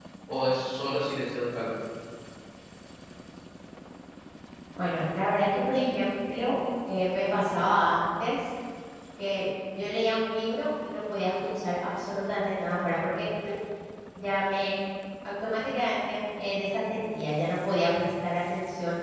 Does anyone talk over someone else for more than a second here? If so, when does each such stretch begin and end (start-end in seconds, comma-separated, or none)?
none